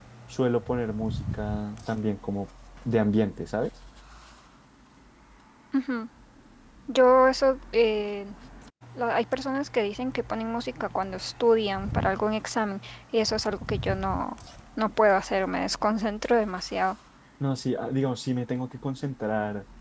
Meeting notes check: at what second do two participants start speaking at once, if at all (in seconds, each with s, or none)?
none